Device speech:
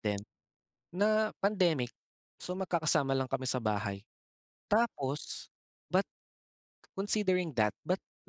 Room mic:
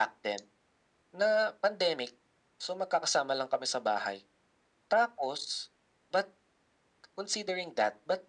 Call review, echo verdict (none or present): present